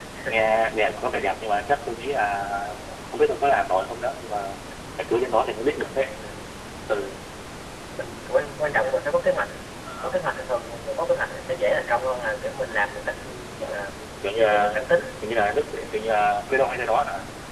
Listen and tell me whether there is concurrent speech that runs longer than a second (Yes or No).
No